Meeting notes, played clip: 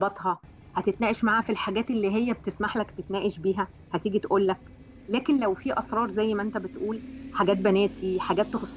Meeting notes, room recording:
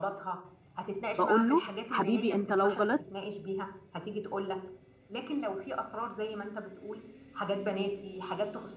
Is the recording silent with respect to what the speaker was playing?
No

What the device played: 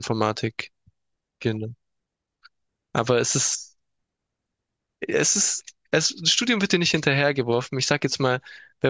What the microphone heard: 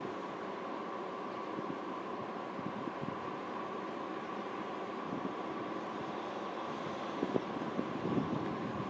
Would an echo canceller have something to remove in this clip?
No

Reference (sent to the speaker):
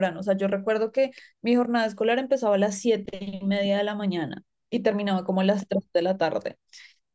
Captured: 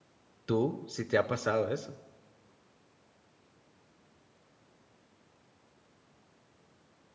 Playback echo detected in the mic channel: No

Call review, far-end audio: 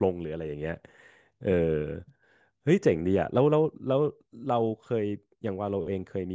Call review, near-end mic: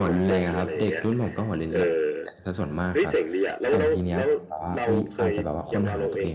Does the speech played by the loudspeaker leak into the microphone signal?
Yes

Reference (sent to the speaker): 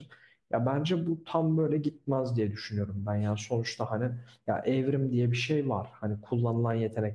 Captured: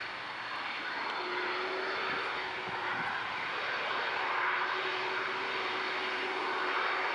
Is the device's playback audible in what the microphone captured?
No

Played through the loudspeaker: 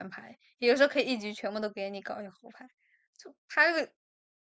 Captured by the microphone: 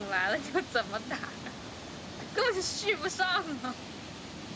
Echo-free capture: Yes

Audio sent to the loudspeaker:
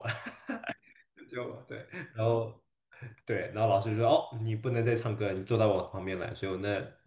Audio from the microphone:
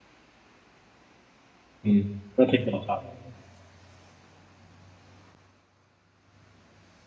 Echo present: No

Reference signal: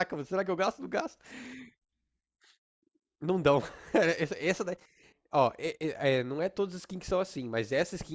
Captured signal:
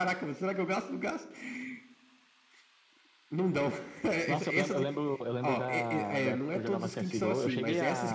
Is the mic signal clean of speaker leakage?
No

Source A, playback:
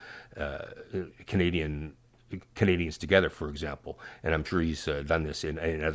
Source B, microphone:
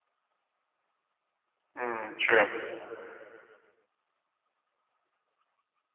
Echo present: No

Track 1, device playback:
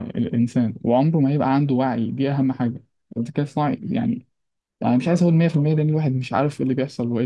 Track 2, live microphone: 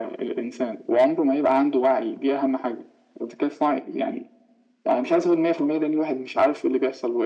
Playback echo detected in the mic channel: Yes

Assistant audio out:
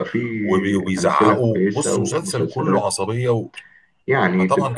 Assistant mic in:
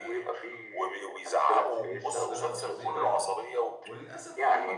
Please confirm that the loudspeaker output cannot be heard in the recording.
No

